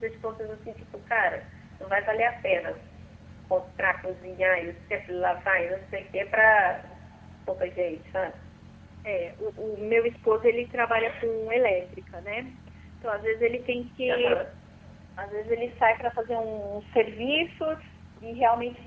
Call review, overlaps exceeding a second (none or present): none